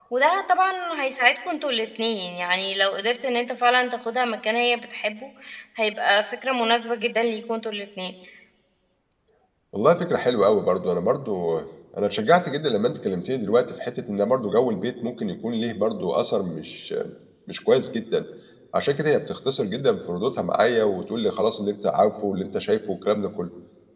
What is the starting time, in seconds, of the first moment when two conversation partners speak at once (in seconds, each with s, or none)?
none